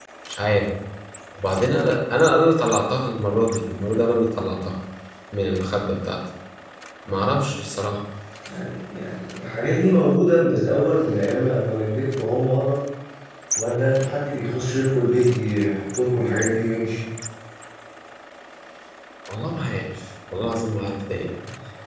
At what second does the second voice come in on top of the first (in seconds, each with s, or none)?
none